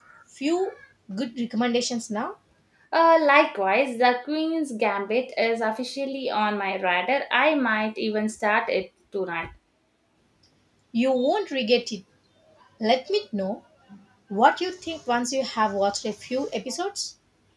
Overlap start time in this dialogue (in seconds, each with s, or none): none